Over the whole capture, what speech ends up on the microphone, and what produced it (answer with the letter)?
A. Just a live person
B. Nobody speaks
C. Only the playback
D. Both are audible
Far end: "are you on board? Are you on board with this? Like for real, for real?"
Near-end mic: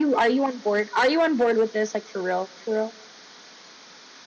C